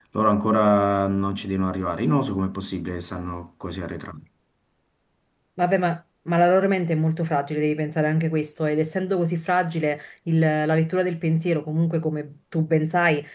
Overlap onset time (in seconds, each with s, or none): none